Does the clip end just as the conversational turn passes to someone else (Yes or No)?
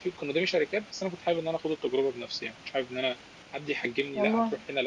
No